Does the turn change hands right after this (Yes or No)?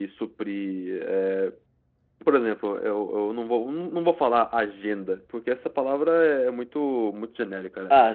No